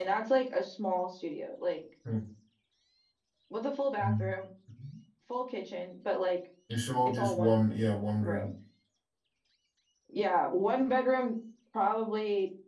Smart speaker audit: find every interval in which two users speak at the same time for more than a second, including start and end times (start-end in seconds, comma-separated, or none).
7.0-8.5